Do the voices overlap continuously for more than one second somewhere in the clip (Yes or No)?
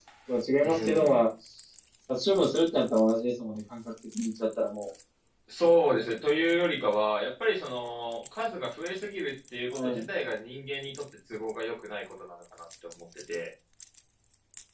No